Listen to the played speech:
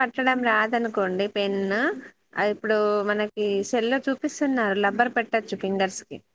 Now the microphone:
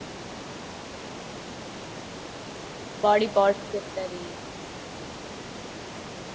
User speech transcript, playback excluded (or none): బాడీ పార్ట్స్ చెప్తది